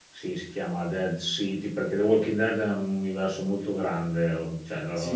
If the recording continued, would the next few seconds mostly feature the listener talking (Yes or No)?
Yes